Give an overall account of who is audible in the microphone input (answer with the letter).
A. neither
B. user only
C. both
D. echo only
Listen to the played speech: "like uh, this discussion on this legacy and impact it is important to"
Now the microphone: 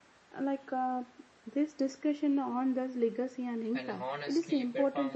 C